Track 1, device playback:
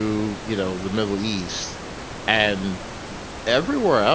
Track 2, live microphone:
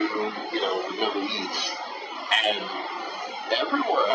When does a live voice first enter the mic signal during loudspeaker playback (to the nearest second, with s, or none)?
none